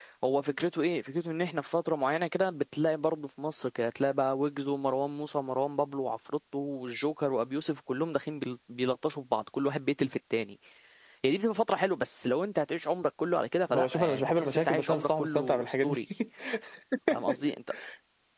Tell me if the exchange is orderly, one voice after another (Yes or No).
No